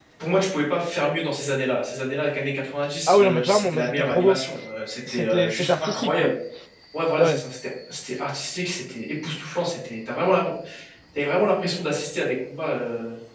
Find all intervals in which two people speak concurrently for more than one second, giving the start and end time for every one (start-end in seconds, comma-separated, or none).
3.1-4.4, 5.1-6.3